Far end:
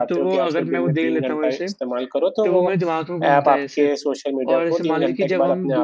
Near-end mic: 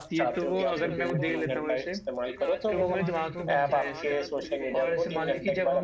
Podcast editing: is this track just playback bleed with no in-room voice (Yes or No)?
No